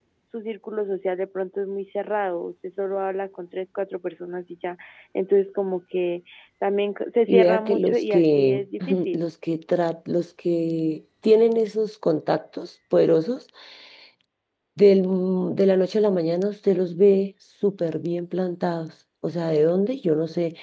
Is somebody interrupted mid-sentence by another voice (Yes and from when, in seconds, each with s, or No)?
Yes, from 7.3 s